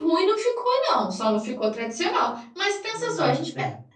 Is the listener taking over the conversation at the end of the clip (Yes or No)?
No